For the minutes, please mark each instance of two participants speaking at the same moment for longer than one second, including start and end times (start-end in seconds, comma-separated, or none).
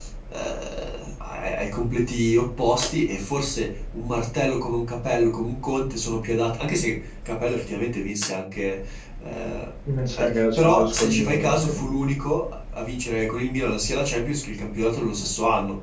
10.2-11.7